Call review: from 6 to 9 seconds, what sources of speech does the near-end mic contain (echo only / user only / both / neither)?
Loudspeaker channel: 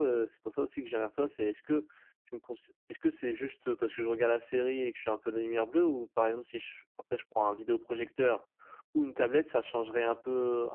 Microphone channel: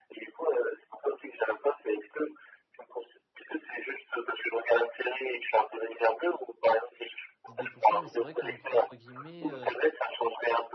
both